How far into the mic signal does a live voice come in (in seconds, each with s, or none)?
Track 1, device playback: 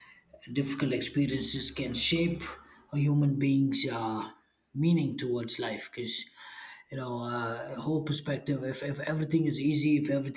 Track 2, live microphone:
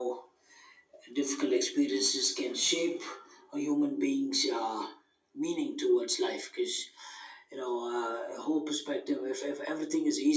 none